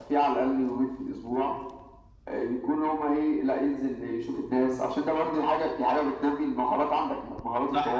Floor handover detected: Yes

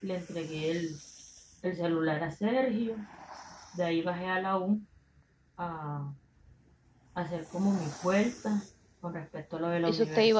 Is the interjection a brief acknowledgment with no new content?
No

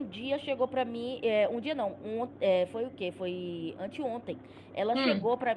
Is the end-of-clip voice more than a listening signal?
No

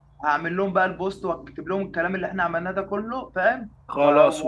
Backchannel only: No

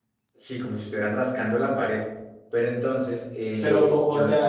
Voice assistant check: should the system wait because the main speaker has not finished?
No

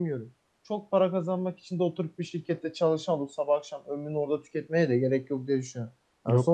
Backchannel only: Yes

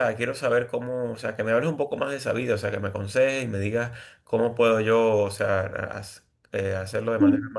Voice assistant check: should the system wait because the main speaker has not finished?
Yes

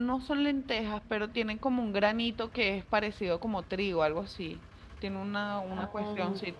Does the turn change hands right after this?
No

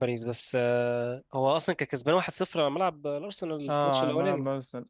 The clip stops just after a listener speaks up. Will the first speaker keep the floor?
No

